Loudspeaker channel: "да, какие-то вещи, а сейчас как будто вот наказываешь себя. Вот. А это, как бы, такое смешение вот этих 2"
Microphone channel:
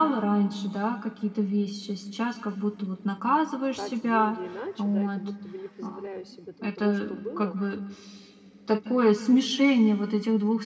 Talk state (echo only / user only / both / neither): both